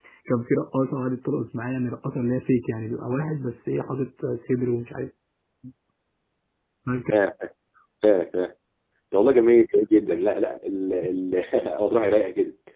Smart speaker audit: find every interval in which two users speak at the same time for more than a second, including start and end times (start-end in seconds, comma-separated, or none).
none